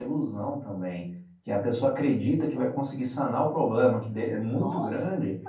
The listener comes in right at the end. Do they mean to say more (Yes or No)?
No